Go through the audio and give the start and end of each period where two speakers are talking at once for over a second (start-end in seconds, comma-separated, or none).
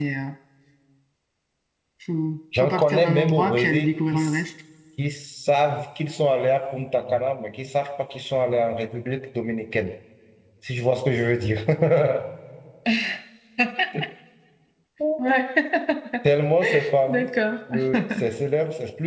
2.6-4.4